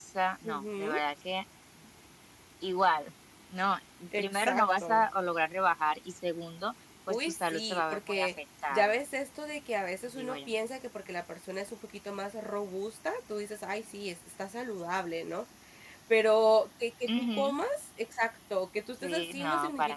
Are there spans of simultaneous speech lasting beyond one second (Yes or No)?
Yes